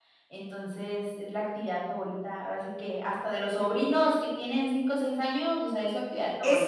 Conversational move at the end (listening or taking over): taking over